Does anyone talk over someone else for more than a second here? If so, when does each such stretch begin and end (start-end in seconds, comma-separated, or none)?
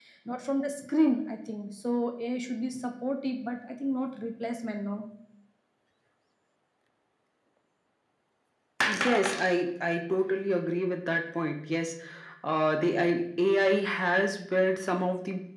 none